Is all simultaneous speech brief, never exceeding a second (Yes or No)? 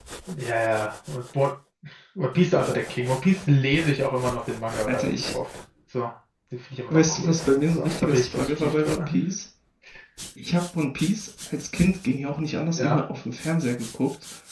No